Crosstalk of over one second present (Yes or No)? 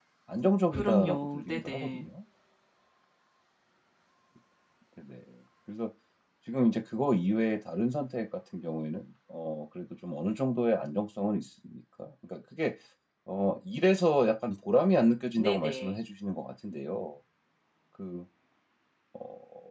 Yes